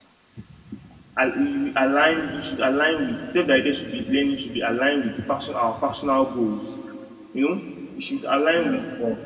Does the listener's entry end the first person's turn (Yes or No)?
No